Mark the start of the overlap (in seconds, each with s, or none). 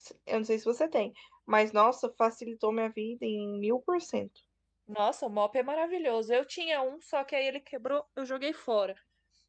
none